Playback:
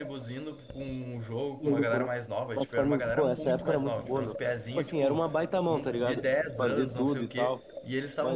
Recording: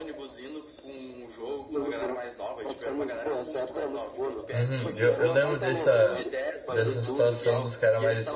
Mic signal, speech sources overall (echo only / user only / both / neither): both